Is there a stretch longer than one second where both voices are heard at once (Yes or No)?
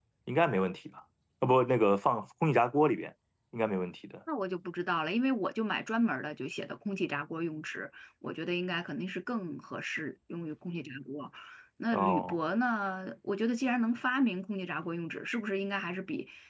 No